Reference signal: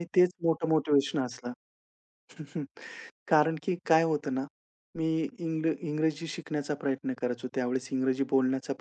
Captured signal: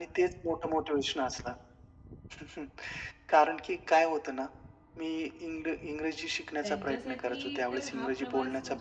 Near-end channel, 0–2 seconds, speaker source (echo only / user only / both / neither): echo only